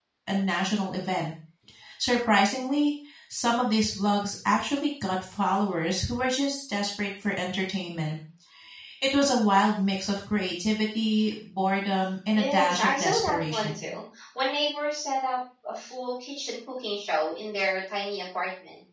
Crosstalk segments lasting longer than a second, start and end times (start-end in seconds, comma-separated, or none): 12.3-13.9